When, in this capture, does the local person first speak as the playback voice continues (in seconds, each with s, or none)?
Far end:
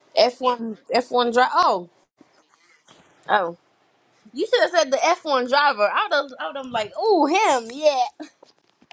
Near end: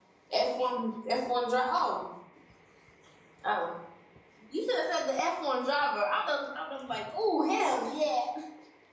none